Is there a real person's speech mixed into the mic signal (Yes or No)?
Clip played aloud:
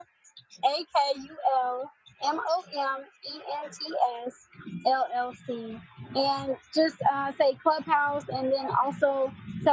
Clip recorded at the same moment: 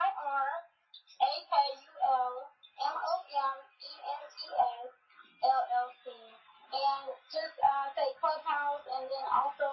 No